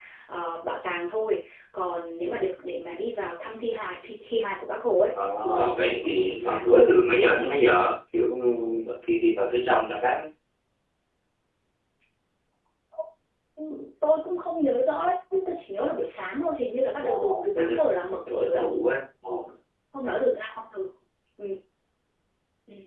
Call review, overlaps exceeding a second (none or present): present